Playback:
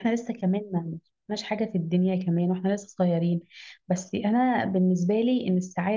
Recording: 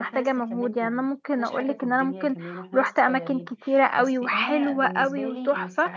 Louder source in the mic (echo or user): user